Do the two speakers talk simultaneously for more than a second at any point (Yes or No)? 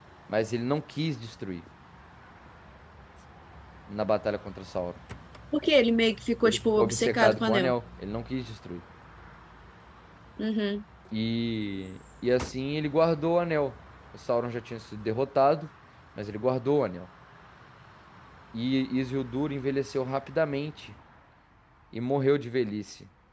Yes